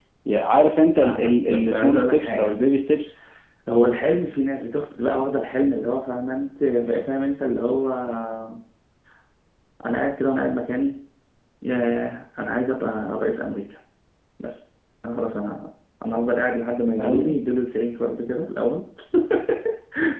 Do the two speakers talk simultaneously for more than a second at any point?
Yes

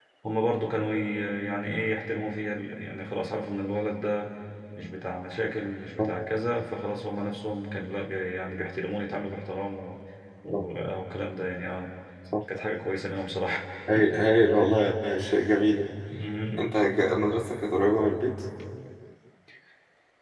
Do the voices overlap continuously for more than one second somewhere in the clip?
No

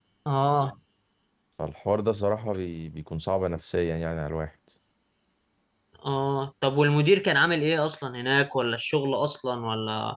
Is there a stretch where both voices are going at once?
No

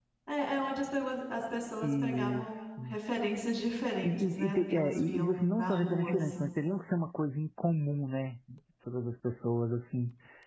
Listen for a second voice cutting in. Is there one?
Yes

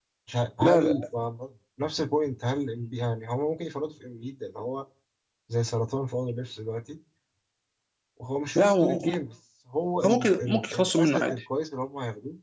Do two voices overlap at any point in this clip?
Yes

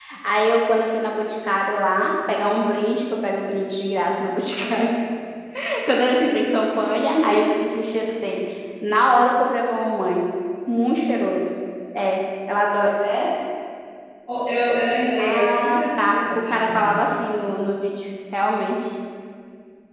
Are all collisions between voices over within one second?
No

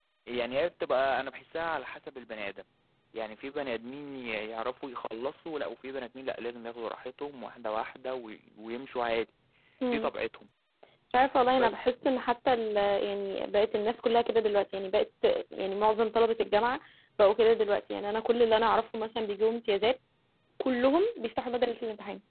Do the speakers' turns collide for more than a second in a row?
No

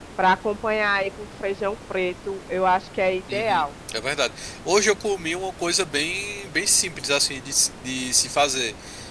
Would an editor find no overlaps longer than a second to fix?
Yes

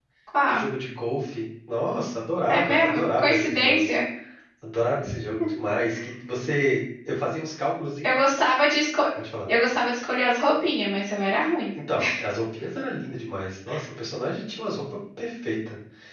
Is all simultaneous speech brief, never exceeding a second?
No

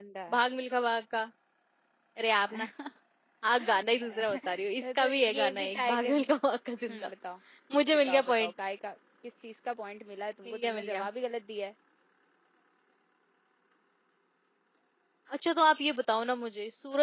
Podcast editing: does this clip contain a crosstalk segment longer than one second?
Yes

